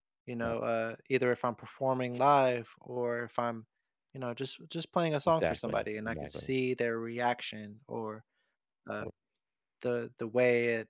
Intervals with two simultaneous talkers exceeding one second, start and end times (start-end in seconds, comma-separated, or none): 5.3-6.5